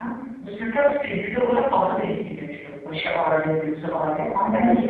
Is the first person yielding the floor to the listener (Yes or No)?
No